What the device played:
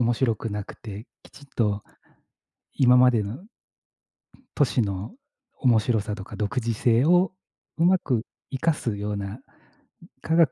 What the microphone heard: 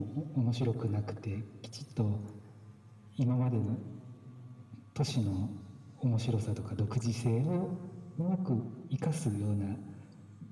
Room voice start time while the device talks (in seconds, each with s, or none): none